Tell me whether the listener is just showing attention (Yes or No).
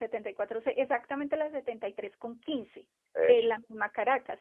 Yes